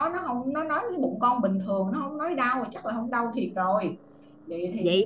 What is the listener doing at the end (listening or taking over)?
taking over